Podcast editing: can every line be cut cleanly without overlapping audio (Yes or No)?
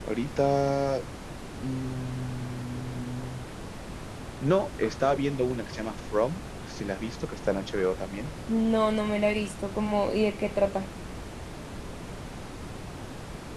Yes